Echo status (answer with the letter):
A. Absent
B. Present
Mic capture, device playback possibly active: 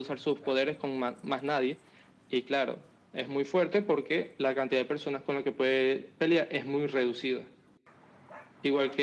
B